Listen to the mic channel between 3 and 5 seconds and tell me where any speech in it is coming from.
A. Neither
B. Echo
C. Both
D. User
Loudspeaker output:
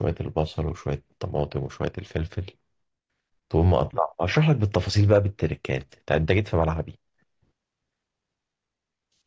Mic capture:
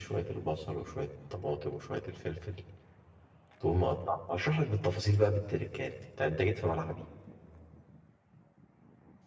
B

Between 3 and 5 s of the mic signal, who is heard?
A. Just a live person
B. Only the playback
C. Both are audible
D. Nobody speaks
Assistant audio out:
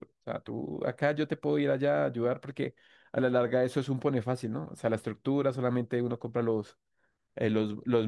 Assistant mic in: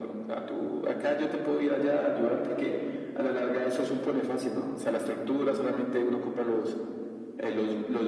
B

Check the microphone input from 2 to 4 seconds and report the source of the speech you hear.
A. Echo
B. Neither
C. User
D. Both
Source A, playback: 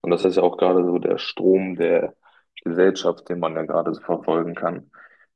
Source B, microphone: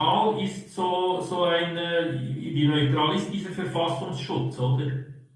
C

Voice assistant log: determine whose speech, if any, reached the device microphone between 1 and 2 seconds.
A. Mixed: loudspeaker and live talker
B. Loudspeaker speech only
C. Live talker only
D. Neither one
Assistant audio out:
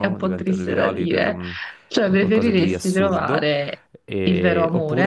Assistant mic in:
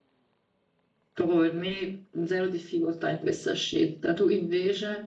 C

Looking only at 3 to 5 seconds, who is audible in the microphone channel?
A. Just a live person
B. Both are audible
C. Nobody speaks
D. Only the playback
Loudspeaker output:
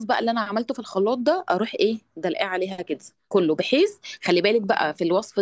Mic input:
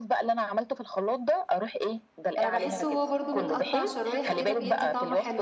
B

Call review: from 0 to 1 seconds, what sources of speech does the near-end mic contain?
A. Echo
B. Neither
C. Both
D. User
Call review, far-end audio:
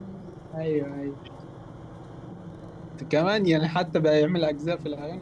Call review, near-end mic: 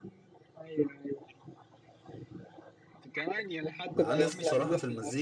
A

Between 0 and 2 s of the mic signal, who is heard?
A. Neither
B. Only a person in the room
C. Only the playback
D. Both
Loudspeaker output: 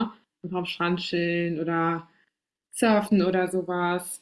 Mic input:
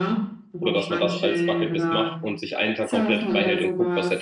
D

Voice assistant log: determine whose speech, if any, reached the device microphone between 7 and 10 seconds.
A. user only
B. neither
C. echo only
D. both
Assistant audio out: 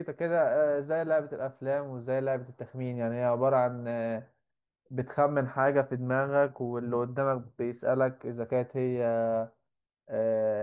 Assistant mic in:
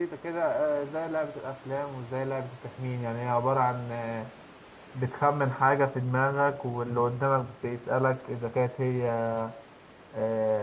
C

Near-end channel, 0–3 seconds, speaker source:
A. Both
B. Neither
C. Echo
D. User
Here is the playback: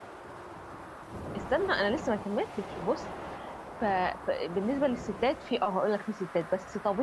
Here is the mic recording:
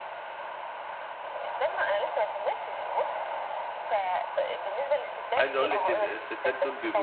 C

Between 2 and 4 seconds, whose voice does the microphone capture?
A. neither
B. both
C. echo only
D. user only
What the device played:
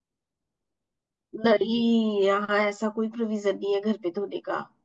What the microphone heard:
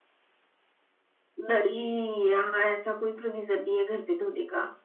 C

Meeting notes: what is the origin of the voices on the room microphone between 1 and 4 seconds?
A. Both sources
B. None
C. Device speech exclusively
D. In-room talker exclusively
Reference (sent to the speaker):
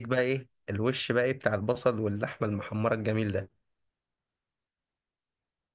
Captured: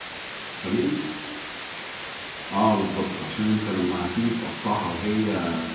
D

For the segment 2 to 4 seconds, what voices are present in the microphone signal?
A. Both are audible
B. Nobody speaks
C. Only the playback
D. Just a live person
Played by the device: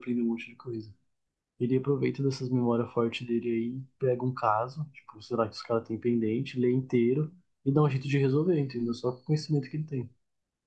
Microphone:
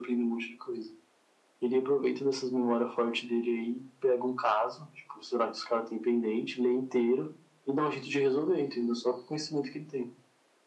C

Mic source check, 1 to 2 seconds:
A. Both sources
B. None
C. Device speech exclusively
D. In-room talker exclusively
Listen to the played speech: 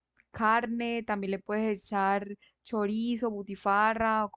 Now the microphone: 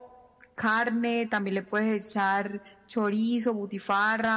C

